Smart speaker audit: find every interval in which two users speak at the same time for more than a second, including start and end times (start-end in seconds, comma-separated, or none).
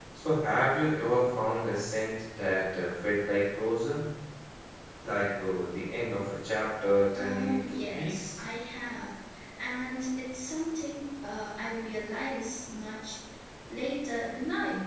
7.1-8.4